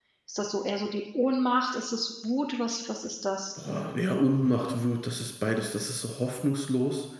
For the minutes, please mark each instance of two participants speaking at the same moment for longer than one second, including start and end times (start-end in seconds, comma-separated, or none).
none